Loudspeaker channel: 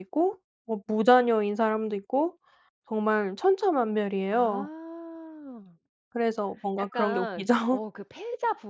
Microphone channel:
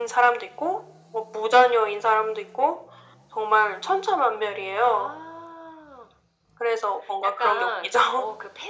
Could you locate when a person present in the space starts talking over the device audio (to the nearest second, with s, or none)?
none